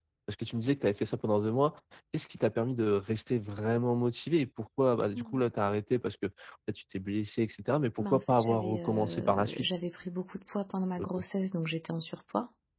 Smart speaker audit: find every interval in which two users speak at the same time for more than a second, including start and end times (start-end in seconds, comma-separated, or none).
8.0-9.7